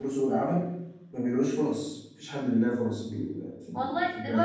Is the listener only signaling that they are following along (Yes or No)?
No